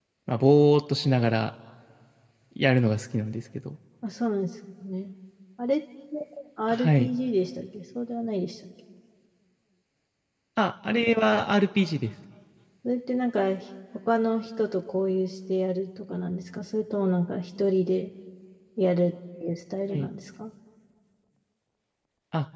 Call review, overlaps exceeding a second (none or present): none